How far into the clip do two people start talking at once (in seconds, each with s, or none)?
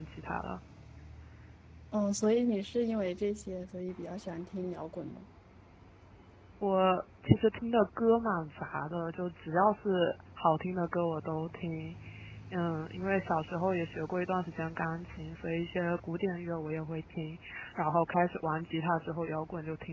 none